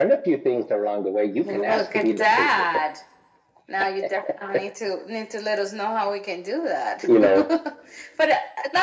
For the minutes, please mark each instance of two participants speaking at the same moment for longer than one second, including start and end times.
1.4-2.6

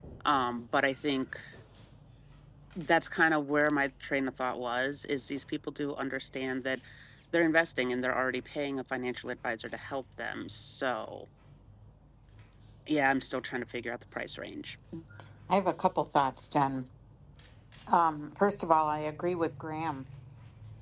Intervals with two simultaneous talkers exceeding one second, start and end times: none

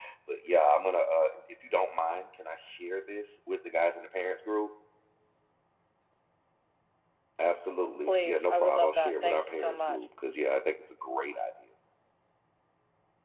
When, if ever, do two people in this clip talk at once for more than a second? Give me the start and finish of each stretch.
8.1-10.0

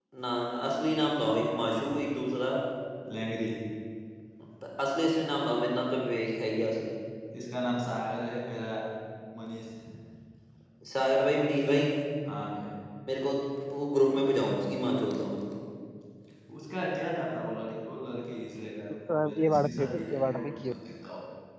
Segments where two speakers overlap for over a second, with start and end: 19.1-20.7

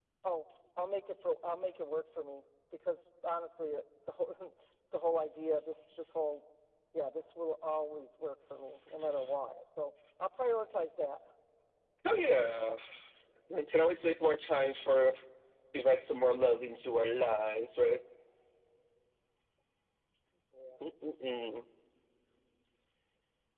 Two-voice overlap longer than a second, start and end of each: none

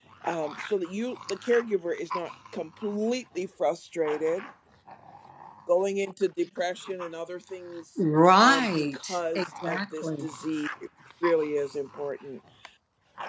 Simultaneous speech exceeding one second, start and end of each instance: 8.4-10.3

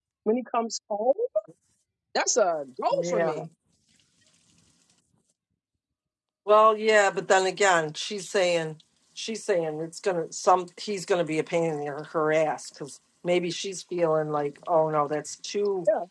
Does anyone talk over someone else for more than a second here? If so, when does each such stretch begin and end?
none

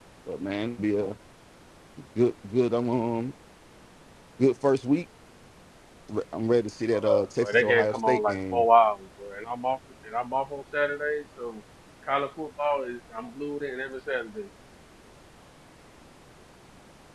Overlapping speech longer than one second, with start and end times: 6.9-8.7

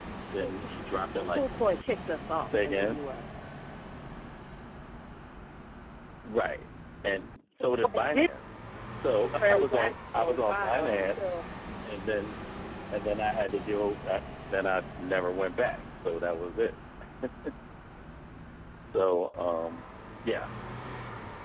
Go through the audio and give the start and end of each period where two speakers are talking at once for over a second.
9.4-11.2

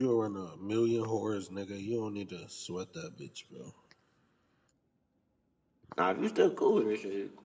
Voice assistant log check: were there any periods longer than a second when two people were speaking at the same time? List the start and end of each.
none

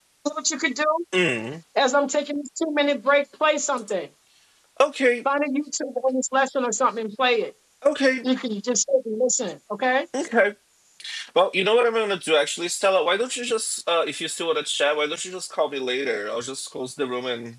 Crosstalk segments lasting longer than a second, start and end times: none

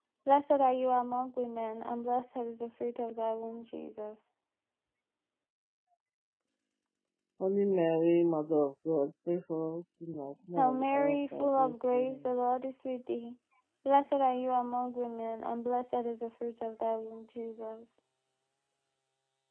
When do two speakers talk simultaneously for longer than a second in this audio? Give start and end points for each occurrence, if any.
10.6-12.2

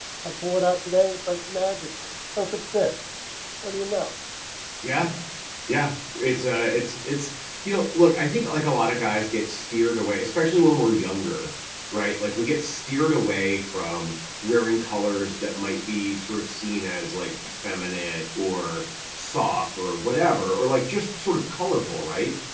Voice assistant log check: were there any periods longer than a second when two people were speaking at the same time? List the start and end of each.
none

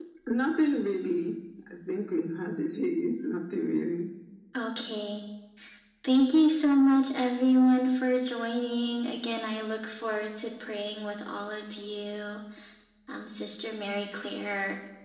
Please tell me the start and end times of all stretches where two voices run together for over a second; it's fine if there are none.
none

